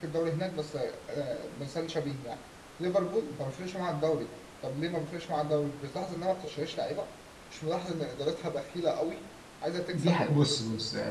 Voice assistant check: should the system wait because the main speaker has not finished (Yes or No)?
No